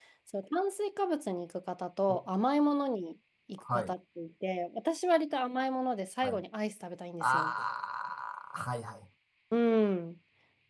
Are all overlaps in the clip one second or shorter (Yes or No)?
Yes